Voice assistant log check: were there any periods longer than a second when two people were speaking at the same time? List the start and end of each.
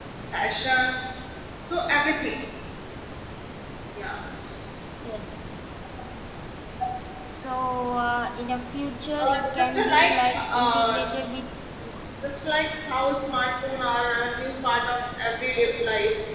9.2-11.0

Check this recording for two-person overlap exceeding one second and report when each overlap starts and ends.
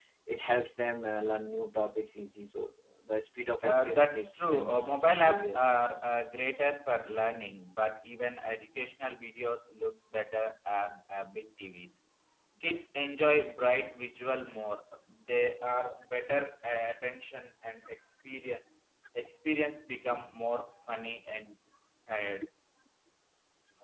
3.7-5.8

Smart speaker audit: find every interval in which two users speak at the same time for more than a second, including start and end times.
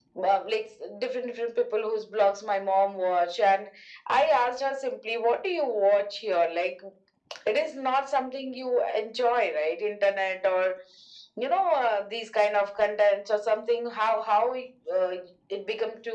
none

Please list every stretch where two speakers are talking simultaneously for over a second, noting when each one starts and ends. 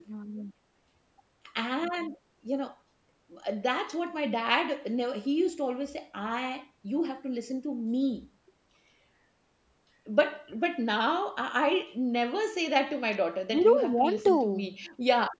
13.5-14.7

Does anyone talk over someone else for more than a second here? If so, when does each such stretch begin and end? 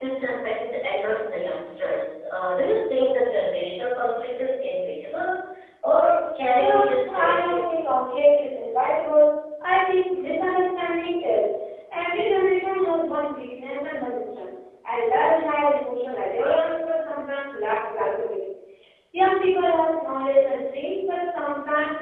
6.6-7.8

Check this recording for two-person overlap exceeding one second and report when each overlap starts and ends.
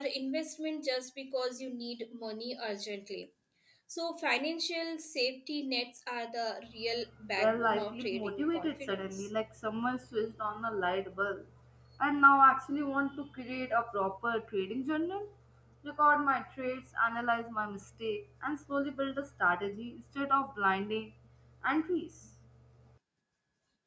7.4-9.3

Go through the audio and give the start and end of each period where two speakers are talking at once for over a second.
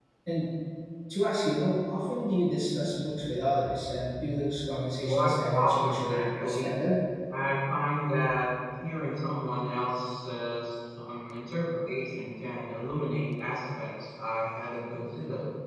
5.1-6.7

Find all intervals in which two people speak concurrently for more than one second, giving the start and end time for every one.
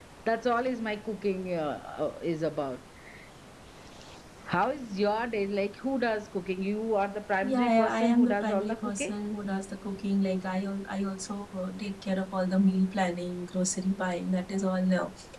7.4-9.1

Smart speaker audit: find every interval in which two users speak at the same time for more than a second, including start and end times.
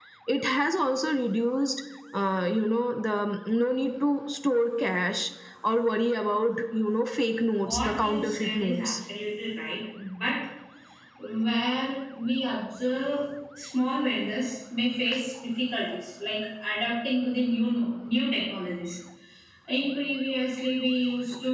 7.7-8.9

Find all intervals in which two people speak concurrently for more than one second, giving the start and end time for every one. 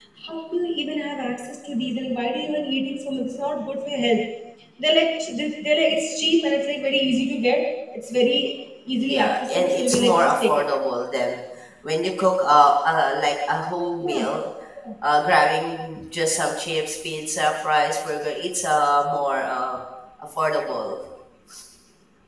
9.0-10.5

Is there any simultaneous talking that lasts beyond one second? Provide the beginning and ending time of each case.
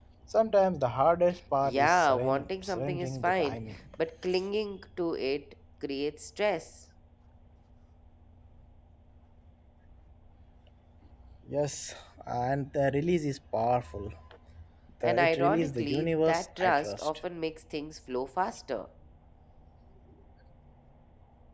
1.6-3.6, 15.0-17.1

